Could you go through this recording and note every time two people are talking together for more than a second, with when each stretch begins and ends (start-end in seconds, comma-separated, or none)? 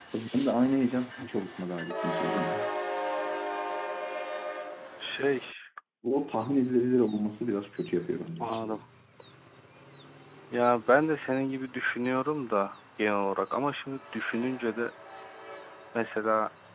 none